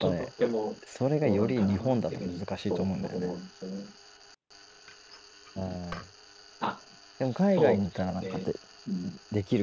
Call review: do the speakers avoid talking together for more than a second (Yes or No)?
No